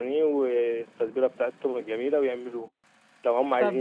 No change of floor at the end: Yes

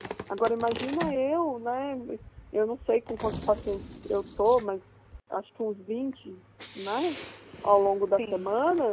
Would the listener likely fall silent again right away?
Yes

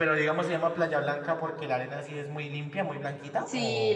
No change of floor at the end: No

